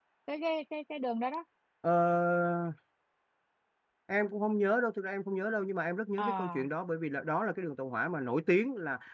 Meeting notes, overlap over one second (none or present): none